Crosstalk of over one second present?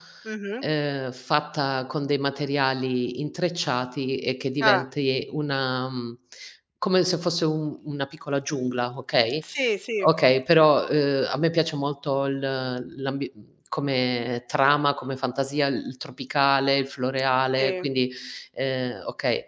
No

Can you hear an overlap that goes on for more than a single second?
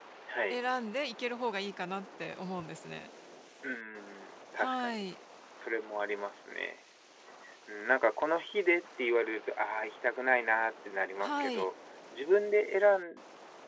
No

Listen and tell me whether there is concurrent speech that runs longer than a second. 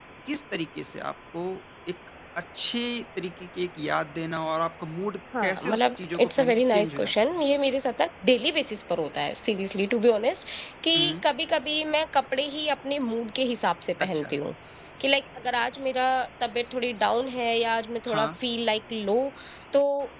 Yes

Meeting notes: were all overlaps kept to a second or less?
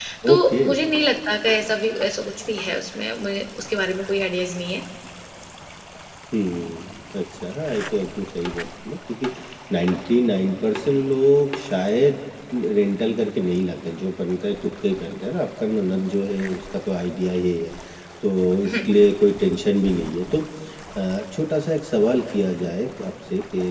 Yes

